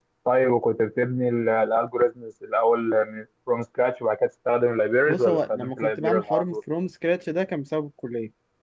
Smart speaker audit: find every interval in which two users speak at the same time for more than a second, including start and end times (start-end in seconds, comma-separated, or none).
5.1-6.6